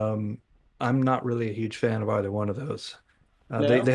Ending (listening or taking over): listening